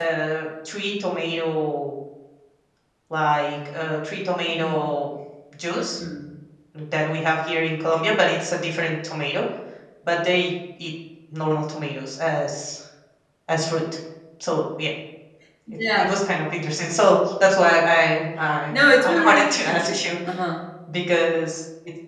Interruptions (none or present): present